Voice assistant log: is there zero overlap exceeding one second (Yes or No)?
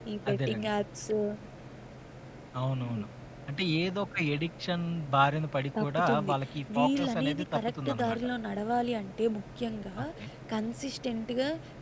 No